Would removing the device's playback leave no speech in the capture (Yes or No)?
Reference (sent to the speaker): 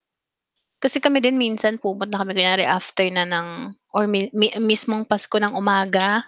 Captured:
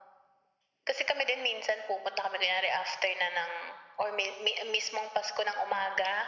Yes